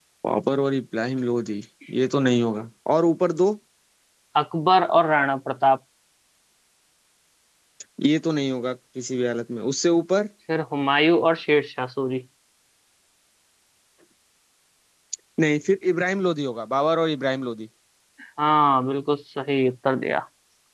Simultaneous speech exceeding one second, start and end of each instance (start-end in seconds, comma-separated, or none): none